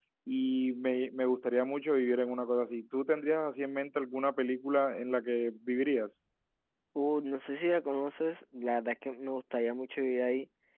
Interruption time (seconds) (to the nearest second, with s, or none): none